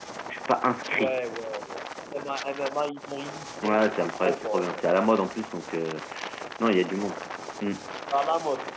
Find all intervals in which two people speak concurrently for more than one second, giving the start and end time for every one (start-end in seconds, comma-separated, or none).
3.6-4.8